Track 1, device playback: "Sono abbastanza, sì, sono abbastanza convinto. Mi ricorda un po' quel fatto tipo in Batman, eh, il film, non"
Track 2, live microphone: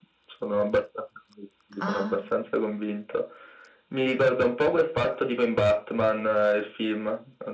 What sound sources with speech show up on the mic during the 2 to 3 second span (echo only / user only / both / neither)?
both